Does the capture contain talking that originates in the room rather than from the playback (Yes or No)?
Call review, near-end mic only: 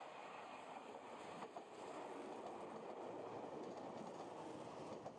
No